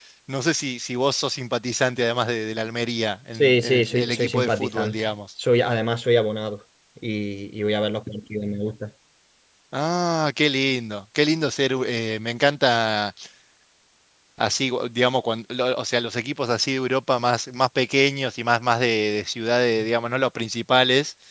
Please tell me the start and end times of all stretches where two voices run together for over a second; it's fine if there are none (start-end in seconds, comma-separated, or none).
3.3-5.1